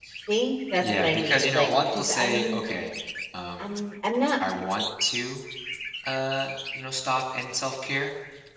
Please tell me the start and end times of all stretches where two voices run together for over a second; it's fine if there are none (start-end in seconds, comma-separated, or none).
0.8-2.6